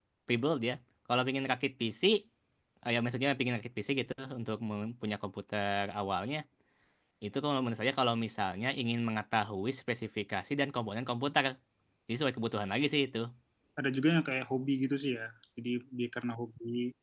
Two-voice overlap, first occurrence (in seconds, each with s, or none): none